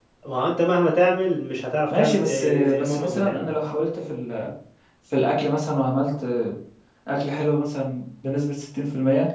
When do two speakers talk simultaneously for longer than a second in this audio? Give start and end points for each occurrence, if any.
1.9-3.5

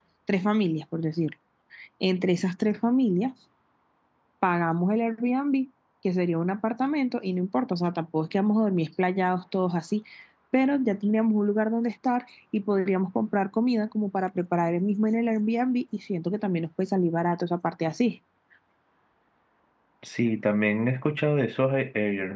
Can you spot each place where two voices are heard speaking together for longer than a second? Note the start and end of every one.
none

